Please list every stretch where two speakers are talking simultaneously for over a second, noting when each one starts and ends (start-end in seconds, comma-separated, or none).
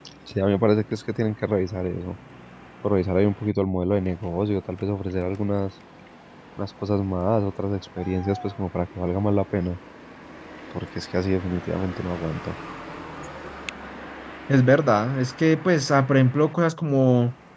none